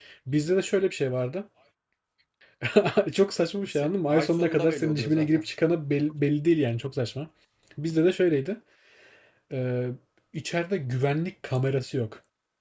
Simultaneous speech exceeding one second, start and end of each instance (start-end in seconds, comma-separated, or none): 3.7-5.4